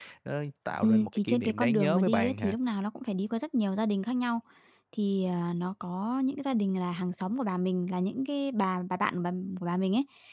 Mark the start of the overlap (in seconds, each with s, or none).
0.8 s